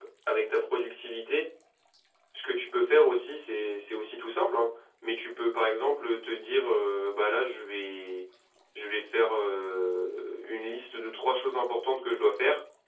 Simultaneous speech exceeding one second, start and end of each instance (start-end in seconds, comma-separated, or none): none